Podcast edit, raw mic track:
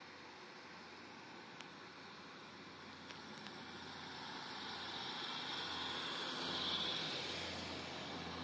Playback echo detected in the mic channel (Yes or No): No